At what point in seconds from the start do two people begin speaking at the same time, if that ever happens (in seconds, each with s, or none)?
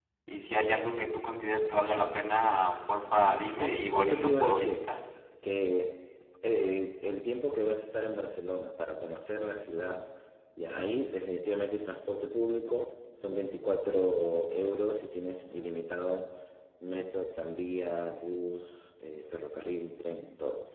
3.6 s